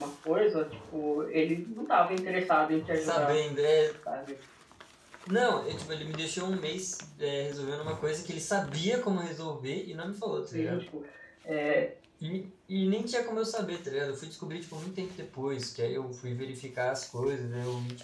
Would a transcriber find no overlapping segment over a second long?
Yes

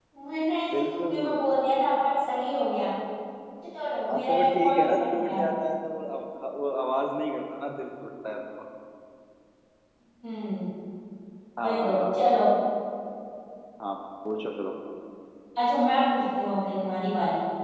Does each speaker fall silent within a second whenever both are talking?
No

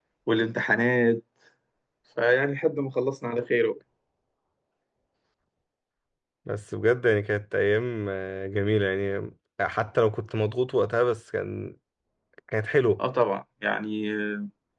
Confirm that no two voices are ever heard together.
Yes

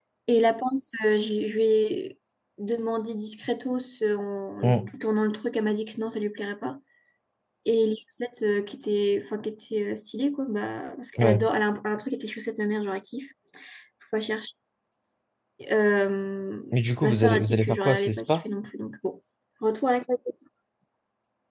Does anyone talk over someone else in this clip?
Yes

